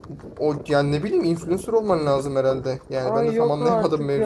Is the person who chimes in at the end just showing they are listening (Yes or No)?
No